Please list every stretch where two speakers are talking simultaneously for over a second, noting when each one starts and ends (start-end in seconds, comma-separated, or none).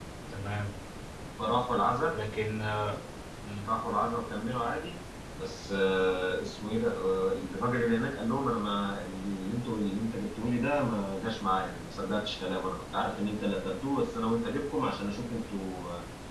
none